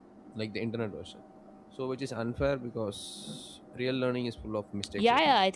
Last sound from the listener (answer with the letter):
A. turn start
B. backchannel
A